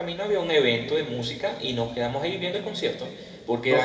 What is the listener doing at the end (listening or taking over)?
listening